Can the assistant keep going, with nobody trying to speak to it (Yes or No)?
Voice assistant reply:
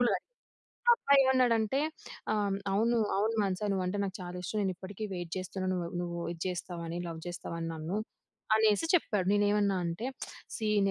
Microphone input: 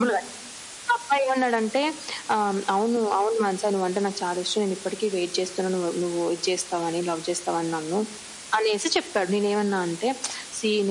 Yes